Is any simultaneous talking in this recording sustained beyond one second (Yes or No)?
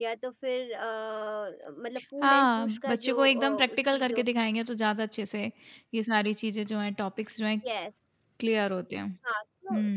Yes